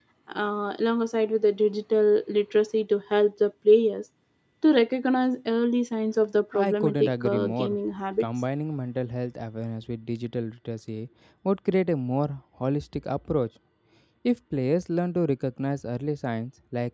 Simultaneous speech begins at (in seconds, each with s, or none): 6.5 s